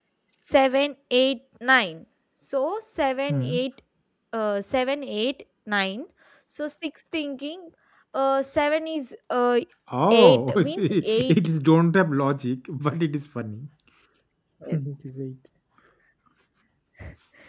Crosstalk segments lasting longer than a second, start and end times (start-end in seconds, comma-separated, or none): 10.1-11.3